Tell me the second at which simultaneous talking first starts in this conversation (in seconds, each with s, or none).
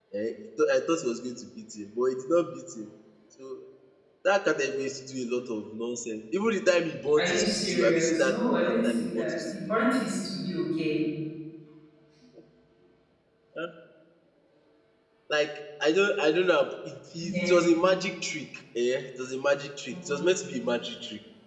7.2 s